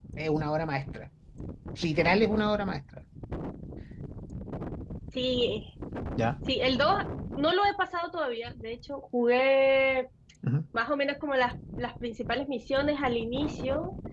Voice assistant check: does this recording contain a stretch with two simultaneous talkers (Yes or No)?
No